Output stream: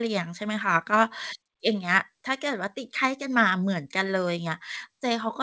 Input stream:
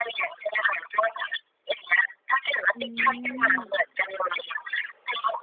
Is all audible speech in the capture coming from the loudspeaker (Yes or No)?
No